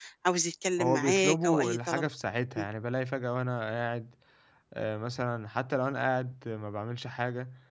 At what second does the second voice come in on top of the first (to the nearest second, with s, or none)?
1 s